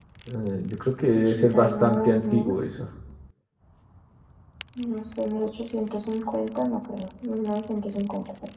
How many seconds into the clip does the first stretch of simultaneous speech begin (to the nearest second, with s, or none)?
1 s